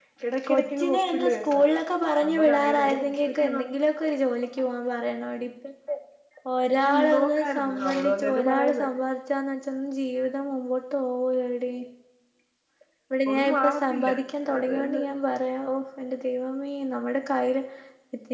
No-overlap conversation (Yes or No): No